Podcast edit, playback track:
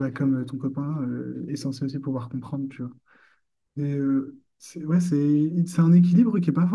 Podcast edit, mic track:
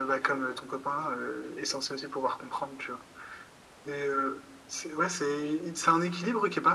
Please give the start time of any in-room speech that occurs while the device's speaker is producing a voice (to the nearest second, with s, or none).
none